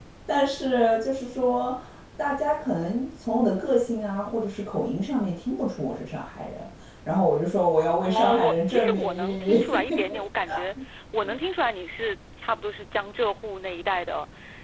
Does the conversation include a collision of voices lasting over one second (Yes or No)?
Yes